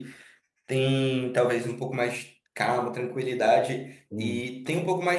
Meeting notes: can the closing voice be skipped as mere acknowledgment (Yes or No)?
Yes